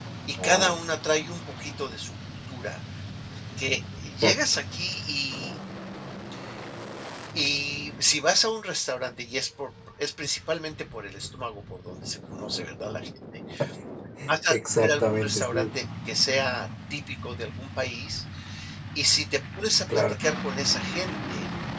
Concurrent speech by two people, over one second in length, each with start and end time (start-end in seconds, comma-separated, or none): 14.5-15.8